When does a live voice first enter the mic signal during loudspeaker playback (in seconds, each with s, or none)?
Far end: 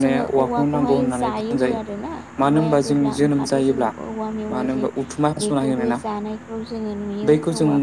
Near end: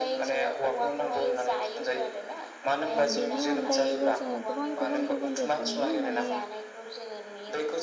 2.9 s